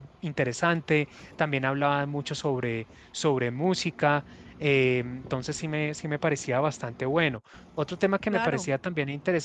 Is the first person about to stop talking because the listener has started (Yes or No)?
No